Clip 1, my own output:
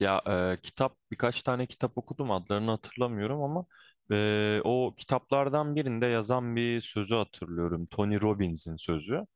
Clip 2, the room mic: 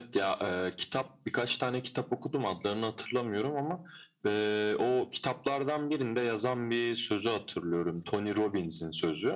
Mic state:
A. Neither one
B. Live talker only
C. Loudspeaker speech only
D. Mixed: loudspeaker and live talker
C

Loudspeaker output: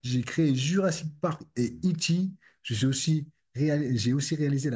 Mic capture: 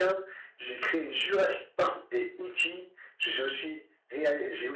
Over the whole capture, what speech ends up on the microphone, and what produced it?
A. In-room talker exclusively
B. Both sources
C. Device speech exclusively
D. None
C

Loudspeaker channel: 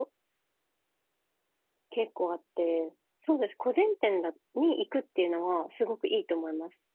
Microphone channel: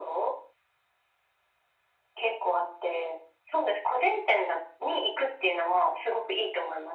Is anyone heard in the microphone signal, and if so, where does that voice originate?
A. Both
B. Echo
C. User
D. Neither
B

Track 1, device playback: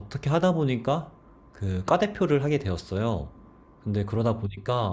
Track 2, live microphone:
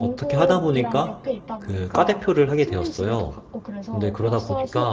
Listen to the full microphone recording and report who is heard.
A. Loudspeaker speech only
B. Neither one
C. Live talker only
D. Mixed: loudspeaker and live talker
D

